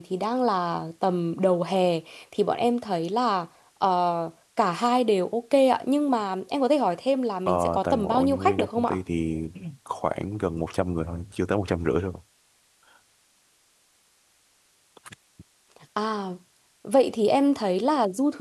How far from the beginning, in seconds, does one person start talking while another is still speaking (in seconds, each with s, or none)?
7.5 s